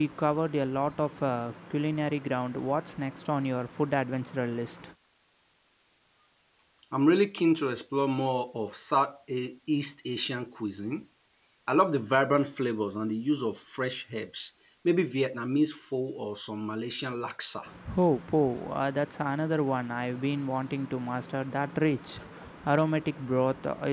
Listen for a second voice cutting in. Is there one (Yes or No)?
No